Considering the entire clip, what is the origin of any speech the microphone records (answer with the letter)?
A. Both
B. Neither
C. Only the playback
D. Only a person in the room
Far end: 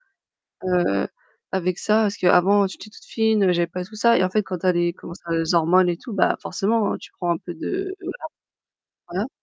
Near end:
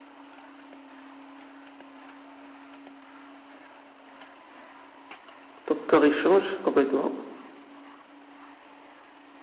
D